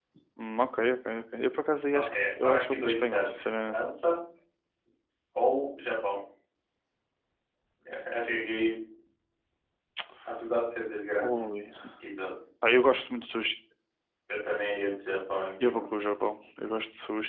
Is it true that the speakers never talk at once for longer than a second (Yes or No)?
No